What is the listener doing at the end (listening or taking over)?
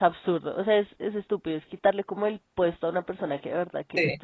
listening